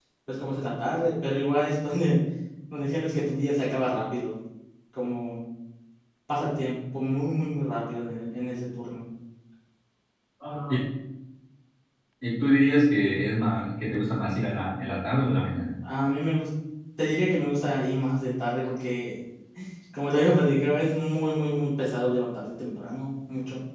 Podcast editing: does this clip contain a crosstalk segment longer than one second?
No

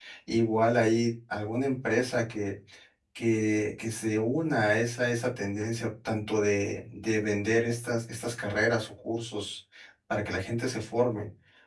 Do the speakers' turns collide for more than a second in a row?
No

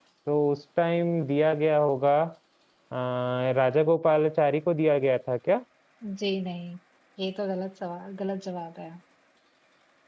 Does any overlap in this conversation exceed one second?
No

